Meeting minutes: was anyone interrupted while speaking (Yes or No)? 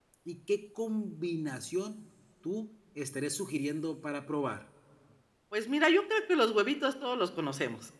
No